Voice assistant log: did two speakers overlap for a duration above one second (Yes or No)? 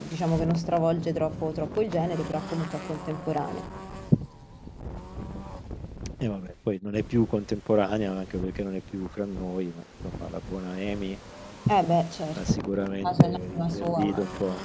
Yes